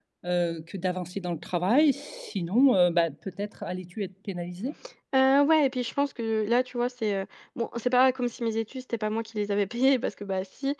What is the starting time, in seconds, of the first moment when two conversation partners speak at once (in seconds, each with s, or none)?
none